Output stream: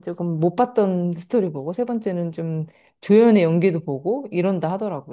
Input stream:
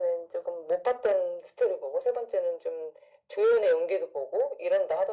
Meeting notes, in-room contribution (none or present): none